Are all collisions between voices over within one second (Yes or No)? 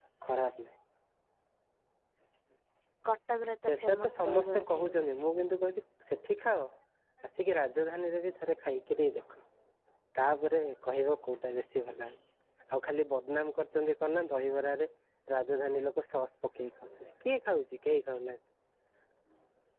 No